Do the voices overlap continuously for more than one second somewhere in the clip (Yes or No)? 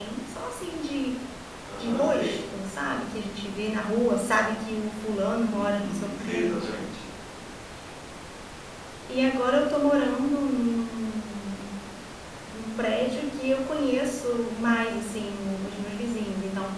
Yes